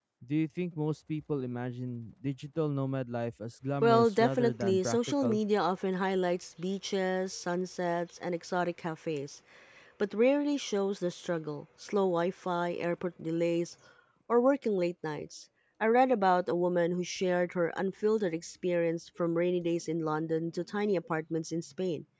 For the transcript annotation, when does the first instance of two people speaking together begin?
3.8 s

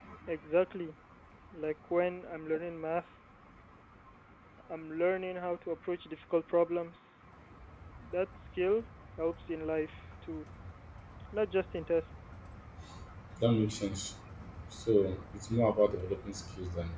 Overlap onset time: none

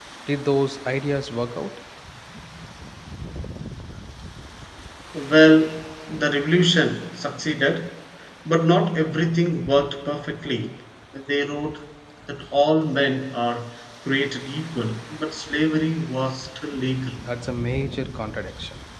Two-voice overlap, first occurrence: none

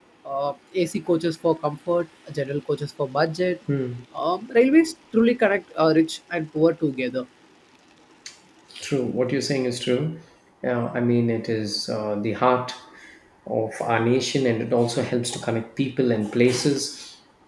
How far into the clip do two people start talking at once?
none

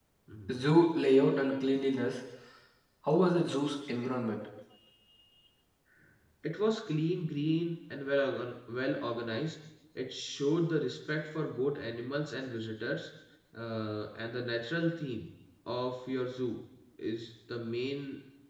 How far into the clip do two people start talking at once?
none

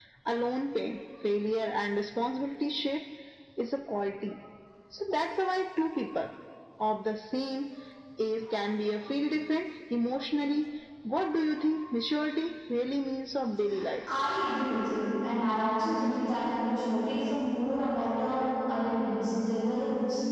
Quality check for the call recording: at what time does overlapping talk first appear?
none

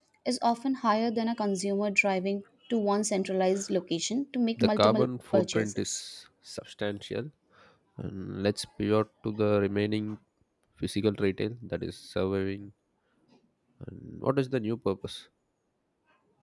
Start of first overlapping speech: 4.6 s

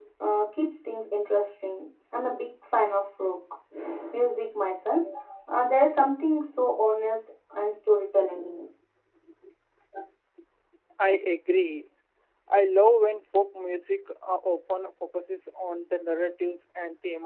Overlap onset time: none

